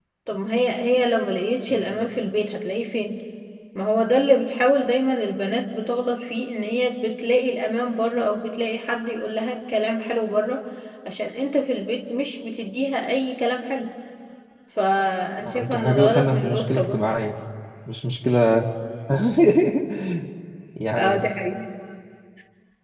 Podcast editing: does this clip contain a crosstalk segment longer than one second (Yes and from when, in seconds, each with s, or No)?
Yes, from 15.6 s